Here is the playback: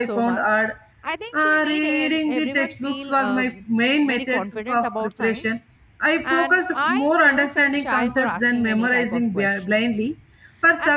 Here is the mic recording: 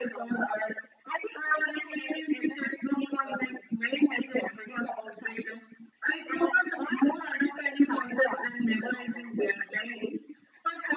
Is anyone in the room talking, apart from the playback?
No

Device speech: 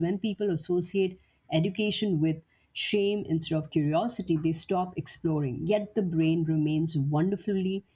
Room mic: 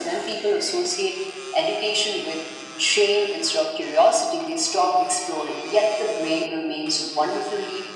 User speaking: No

